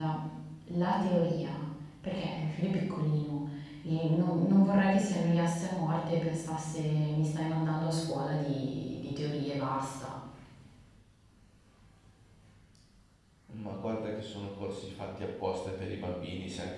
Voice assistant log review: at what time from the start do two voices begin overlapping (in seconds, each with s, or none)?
none